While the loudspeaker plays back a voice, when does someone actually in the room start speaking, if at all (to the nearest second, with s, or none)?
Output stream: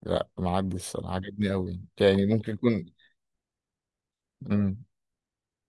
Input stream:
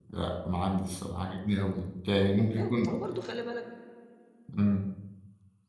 2 s